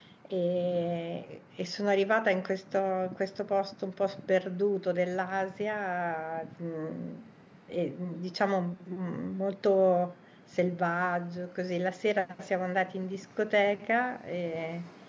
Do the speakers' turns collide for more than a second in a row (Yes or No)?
No